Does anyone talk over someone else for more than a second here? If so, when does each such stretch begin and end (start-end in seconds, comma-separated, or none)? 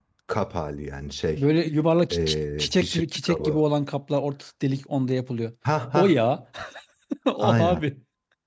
2.1-3.6